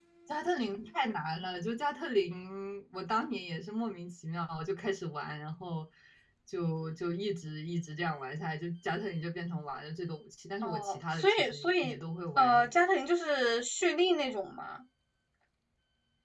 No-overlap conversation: No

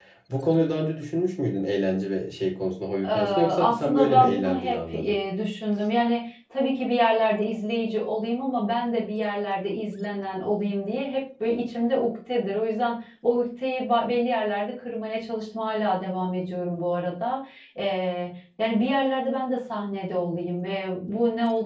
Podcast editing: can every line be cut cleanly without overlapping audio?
No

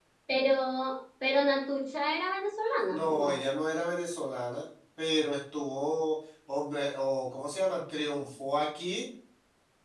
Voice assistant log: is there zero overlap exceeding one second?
Yes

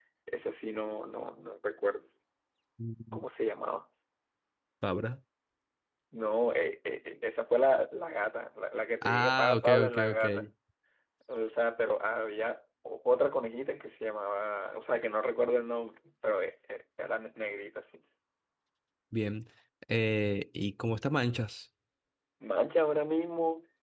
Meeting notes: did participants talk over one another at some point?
Yes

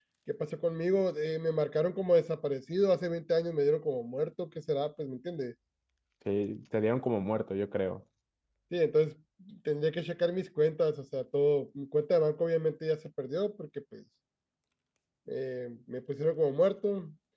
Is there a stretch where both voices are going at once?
No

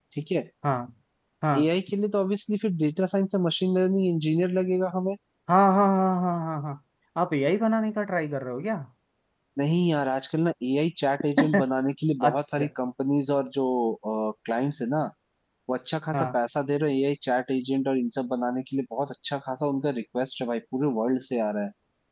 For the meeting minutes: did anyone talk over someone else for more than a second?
No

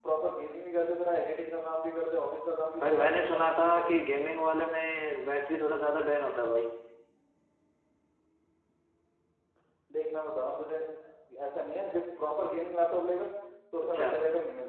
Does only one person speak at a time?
No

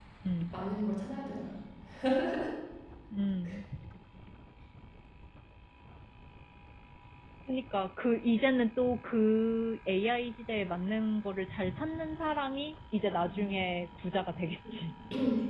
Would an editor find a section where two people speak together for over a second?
No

